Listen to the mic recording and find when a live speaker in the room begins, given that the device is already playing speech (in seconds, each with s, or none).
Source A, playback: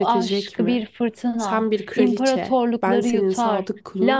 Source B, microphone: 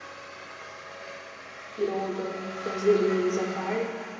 1.8 s